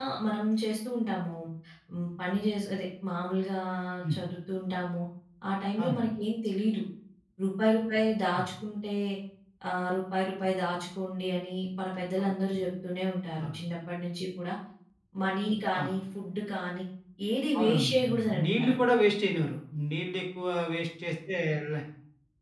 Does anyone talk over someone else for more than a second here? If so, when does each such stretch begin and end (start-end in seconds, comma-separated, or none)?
17.6-18.8